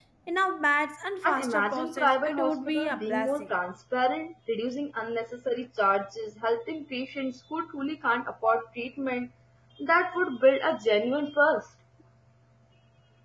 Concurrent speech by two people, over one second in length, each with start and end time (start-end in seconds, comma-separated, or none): 1.2-3.5